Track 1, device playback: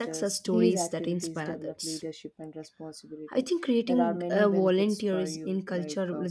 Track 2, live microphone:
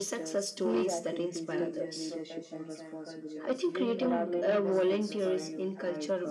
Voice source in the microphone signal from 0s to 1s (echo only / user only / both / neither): echo only